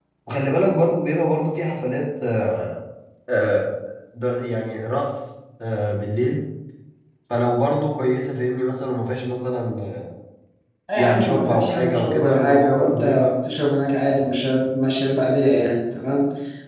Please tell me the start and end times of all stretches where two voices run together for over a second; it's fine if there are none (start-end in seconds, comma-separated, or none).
10.9-13.3